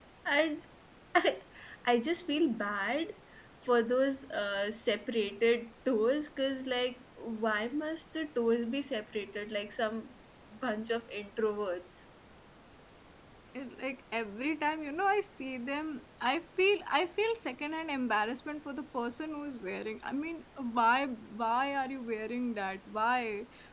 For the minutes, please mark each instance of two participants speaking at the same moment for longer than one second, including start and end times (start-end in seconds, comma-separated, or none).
none